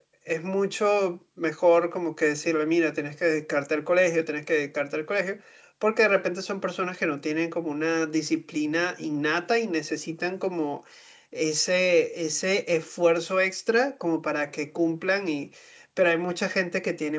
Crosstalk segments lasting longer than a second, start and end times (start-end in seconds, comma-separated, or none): none